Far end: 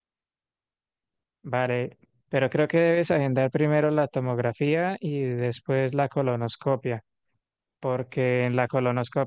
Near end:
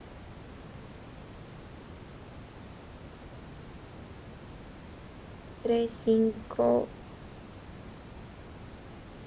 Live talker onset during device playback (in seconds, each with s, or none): 5.6 s